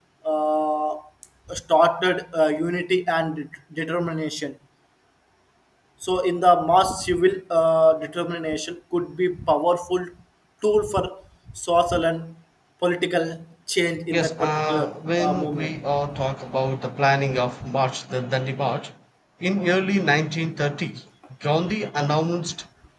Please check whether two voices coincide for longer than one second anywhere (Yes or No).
Yes